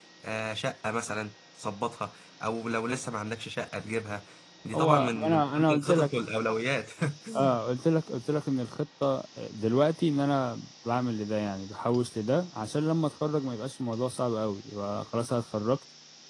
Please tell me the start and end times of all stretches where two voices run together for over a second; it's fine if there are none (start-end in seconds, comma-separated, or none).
4.8-6.1